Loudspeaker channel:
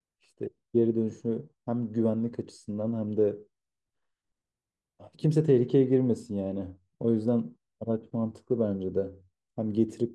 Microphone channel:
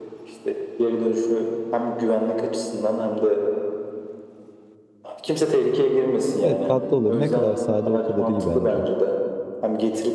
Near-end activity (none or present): present